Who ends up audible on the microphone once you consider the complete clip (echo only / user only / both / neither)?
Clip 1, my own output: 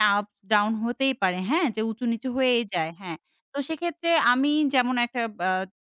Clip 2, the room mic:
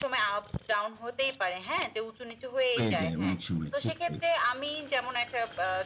both